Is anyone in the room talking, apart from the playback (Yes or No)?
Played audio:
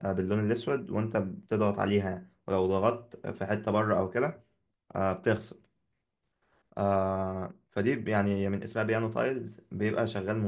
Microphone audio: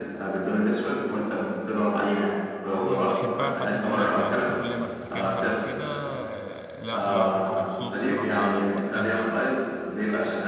Yes